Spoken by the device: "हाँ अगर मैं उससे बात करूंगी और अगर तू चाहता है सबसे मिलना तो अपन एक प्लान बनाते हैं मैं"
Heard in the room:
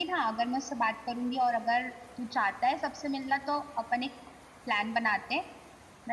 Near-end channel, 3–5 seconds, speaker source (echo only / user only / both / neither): echo only